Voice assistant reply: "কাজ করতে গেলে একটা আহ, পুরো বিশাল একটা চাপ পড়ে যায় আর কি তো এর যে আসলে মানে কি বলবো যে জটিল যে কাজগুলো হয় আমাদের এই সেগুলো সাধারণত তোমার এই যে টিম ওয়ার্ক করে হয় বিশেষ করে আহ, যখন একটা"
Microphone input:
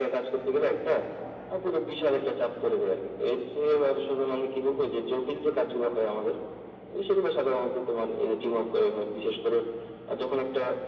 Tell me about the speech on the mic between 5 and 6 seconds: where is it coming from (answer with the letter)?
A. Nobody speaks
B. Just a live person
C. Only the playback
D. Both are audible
C